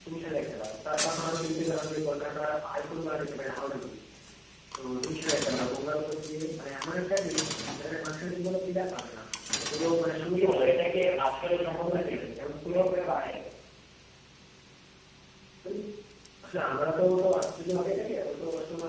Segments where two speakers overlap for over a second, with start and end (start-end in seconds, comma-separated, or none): 10.3-12.1